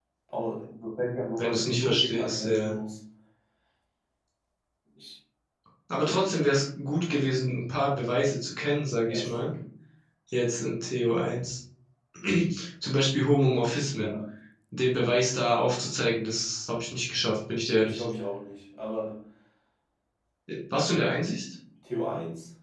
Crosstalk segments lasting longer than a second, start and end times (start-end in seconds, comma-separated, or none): 1.4-2.8